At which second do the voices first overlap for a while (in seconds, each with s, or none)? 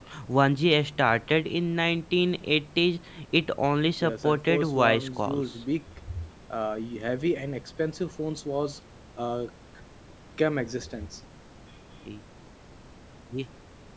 4.0 s